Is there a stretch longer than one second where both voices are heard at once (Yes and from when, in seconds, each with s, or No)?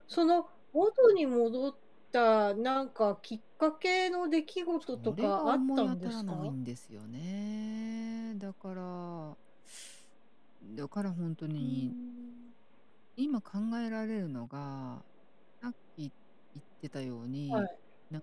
Yes, from 4.9 s